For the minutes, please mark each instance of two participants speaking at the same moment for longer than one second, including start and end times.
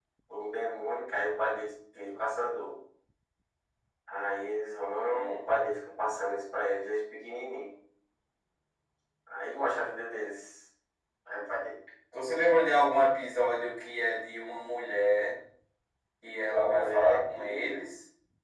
16.4-17.8

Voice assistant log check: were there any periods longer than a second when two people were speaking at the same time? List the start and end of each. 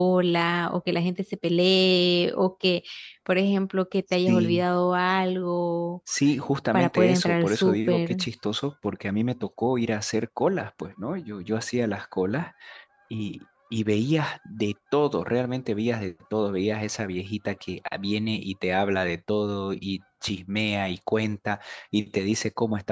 6.7-8.2

